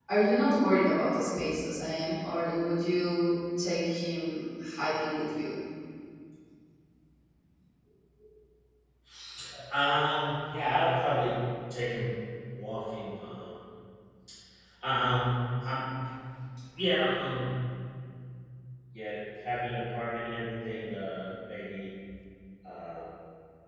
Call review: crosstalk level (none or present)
none